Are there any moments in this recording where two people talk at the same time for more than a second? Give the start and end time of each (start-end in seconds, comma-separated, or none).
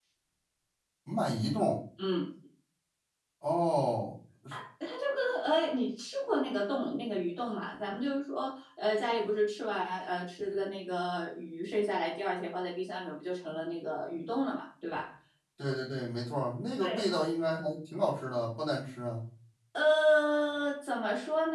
none